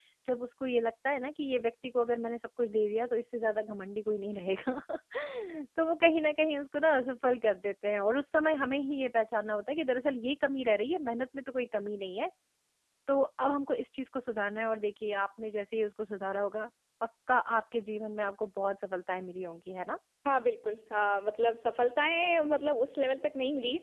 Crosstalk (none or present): none